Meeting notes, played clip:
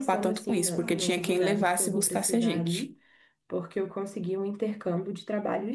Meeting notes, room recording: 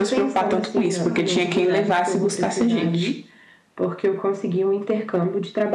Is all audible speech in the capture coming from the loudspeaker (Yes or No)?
Yes